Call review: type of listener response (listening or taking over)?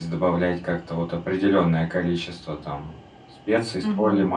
listening